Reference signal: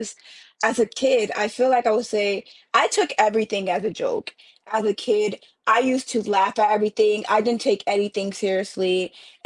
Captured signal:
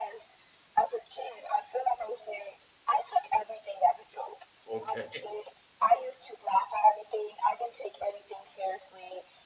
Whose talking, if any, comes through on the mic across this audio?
both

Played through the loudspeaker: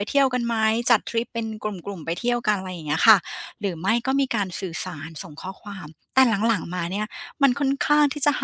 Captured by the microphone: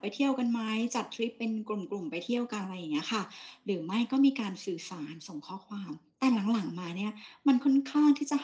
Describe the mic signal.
echo only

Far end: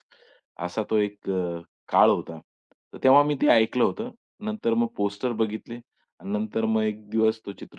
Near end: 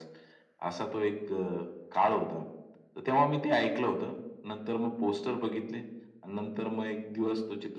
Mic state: echo only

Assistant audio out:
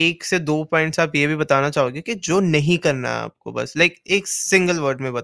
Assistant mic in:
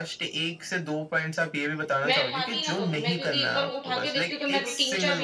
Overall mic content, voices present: both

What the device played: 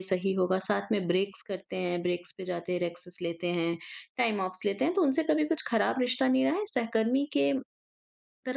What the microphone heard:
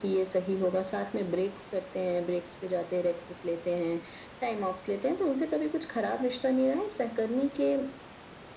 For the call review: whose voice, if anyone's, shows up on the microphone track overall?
echo only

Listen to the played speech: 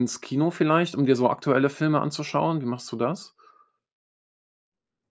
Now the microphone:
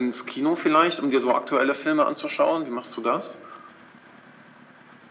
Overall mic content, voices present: echo only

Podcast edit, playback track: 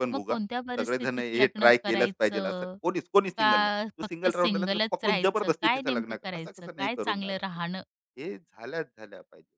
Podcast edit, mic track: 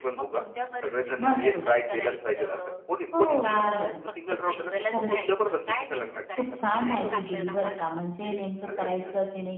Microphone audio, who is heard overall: both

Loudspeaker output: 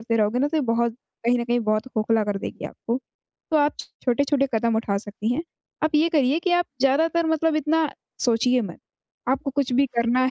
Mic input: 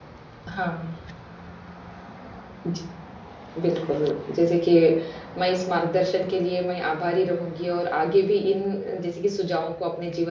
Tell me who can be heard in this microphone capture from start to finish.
user only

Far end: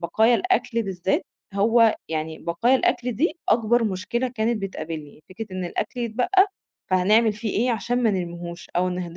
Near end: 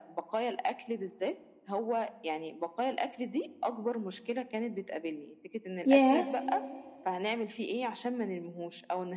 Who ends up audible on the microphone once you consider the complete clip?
both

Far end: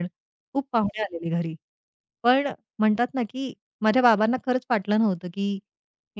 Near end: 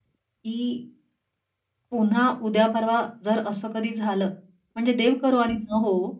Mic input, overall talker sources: user only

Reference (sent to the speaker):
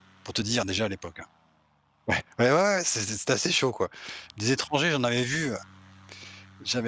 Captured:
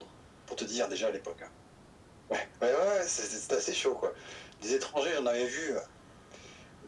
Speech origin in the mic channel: echo only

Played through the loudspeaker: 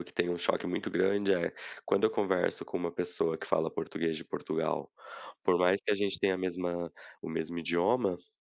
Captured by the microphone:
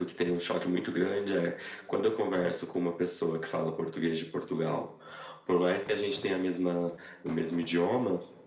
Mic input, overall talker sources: echo only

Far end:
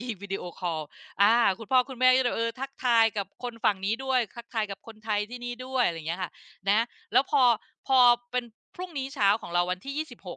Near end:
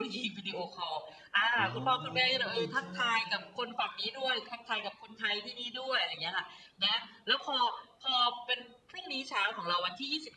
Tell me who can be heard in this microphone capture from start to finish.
both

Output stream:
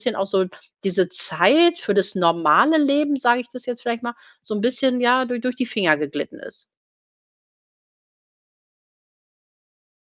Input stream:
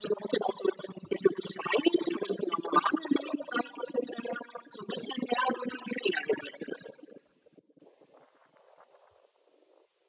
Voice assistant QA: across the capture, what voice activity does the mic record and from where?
echo only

